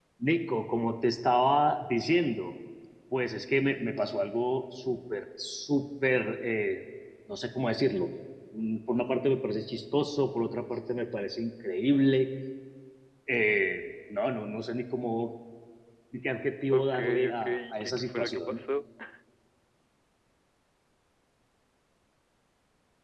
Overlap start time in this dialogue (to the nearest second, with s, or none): 17 s